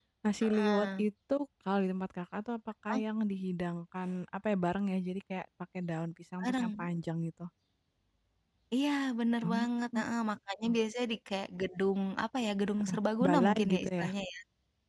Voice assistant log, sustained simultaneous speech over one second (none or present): present